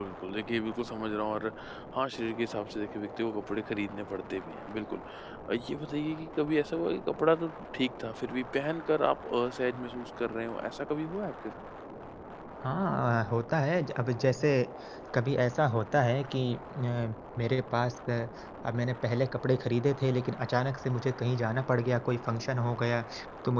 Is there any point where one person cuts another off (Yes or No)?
No